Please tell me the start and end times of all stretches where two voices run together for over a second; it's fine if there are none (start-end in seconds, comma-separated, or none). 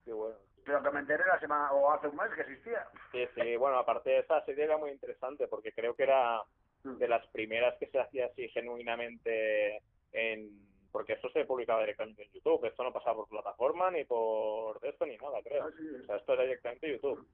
none